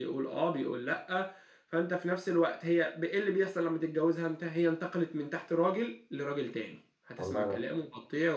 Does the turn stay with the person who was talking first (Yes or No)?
Yes